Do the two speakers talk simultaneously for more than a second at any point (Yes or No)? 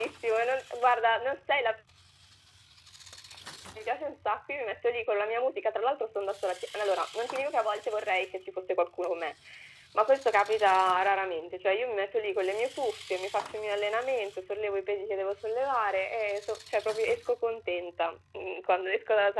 No